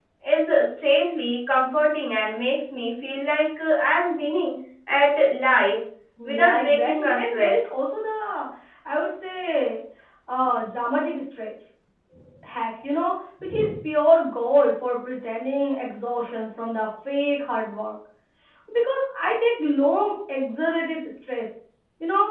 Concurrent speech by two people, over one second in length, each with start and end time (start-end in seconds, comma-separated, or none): 6.2-7.7